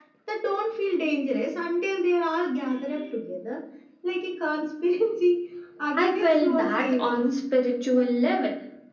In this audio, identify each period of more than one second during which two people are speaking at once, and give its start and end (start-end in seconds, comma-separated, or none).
6.0-7.3